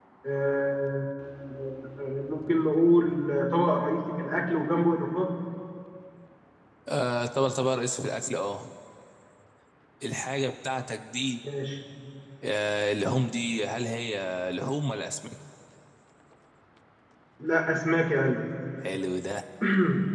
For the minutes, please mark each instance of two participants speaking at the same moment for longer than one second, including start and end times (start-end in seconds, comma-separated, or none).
none